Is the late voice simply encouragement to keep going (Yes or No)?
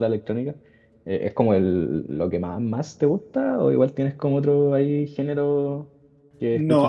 No